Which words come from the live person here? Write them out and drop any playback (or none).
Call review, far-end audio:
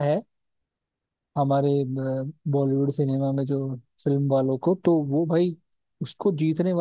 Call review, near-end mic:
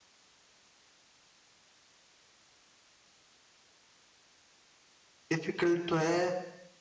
डिफिकल्ट तो है